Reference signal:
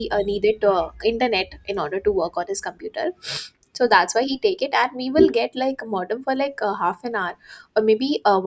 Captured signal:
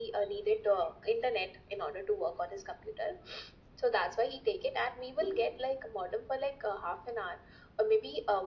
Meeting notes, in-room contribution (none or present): none